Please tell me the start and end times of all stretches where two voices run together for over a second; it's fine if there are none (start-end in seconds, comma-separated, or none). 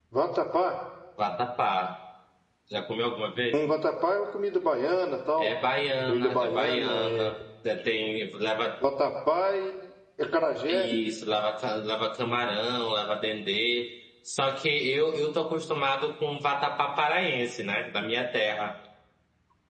6.1-7.3